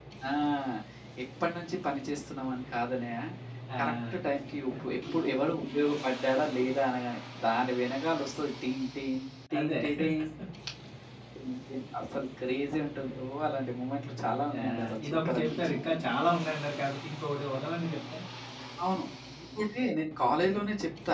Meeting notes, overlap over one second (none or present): present